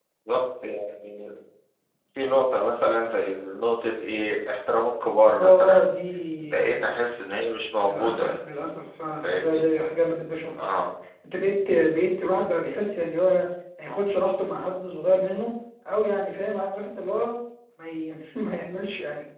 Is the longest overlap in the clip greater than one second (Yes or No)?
No